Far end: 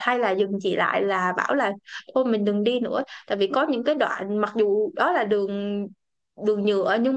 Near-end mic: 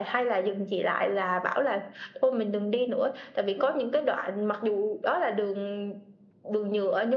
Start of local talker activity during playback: none

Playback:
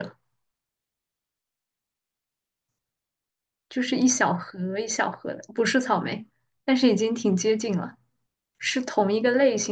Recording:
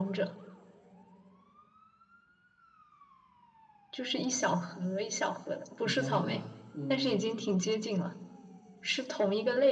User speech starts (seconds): 6 s

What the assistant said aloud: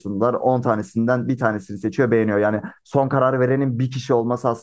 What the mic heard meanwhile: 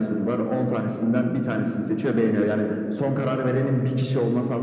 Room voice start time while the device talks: none

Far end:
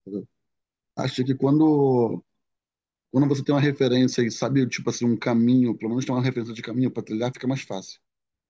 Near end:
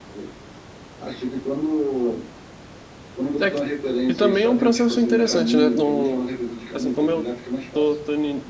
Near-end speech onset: 3 s

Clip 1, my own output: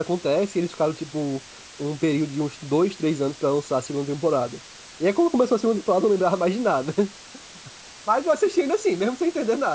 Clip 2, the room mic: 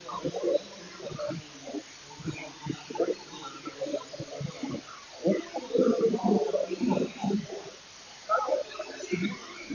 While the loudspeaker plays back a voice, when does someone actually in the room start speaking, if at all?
none

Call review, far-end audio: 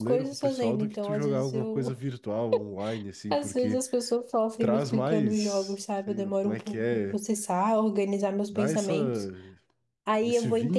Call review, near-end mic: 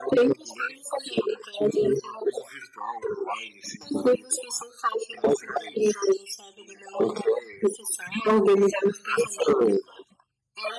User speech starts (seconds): none

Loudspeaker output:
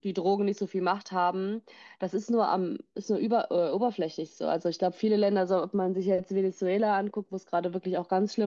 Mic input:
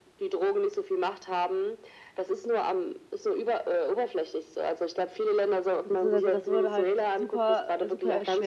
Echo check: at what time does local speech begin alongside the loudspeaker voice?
6 s

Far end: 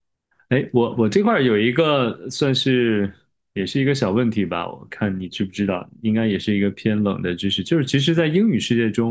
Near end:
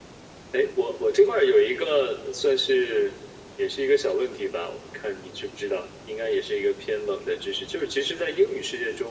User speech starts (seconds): none

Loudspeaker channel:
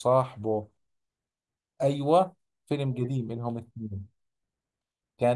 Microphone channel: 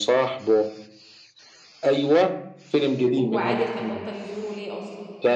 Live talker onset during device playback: 3 s

